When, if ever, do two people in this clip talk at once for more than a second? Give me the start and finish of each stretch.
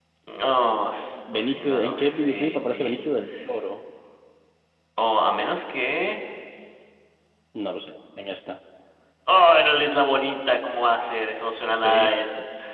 1.3-3.1

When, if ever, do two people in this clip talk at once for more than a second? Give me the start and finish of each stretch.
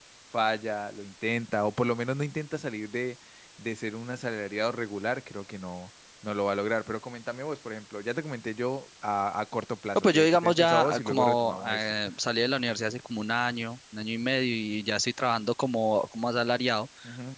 9.9-11.9

